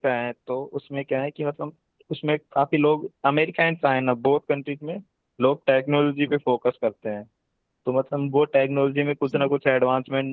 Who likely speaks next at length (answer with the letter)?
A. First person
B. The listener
A